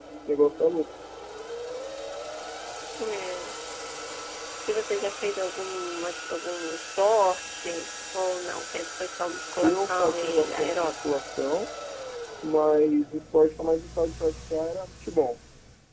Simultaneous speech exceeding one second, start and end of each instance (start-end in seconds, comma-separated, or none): 9.6-10.9